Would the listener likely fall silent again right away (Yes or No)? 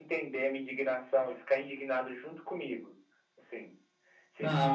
No